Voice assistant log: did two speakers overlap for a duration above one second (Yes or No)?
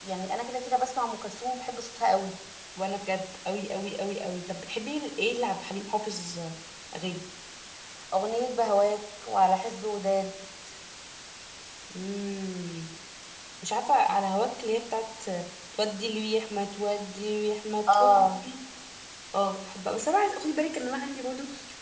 No